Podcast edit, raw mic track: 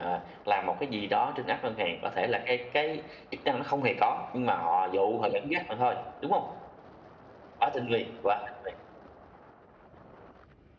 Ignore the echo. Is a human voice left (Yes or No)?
No